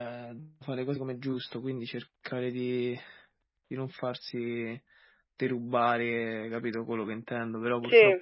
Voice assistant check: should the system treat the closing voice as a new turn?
No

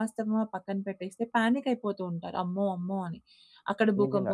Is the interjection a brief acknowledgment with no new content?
Yes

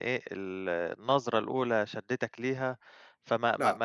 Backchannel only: No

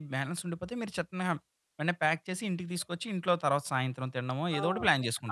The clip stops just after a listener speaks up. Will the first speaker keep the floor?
No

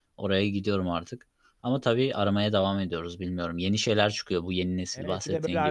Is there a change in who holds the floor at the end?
Yes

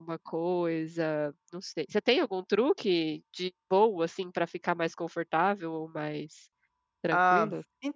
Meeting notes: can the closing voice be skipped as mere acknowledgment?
No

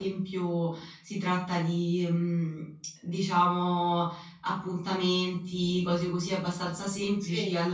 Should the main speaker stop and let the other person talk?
No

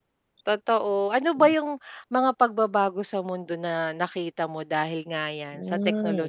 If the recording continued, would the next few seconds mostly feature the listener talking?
Yes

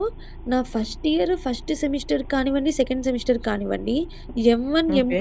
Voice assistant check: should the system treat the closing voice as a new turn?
No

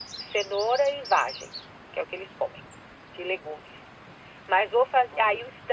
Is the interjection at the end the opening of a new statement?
No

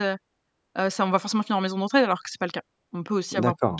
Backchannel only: No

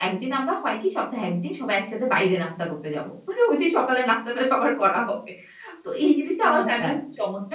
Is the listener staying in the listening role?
Yes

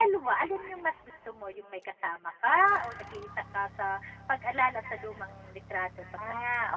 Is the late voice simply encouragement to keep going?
No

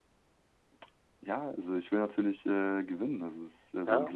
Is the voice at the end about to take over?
Yes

